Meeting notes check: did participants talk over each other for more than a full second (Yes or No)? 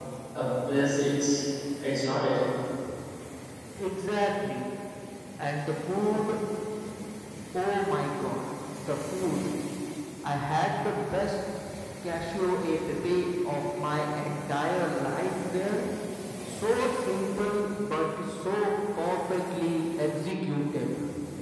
No